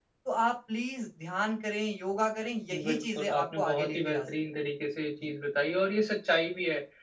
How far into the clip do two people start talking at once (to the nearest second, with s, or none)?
3 s